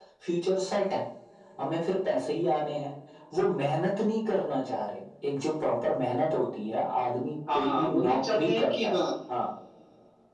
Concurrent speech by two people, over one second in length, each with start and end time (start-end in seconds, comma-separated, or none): 7.5-9.0